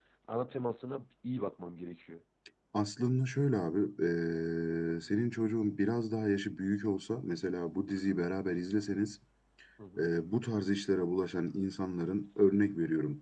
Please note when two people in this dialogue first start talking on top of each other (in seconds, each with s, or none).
none